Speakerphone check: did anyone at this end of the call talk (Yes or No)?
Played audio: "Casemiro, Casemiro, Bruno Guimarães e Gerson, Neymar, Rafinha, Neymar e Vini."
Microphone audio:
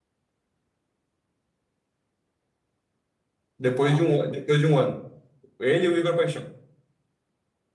Yes